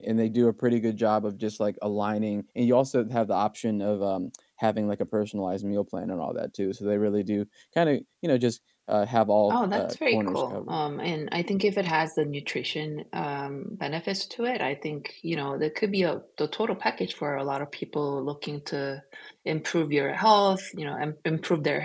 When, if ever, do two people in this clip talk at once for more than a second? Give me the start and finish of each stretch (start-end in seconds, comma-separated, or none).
9.5-10.8